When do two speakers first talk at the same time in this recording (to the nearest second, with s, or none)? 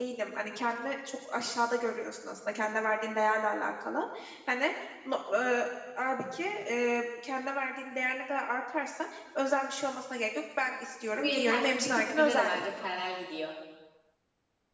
11 s